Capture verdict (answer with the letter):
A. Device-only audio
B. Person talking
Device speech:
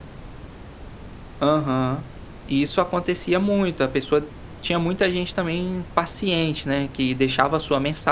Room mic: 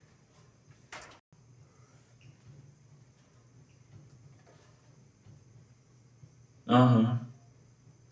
B